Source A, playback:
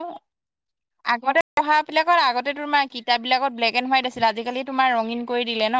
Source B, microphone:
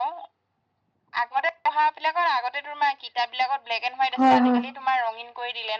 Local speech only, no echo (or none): হয় হয়